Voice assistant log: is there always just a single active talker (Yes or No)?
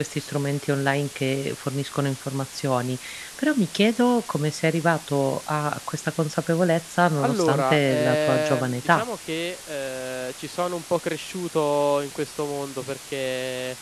No